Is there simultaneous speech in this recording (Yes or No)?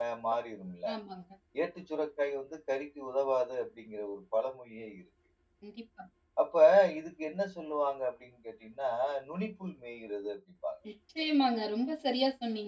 No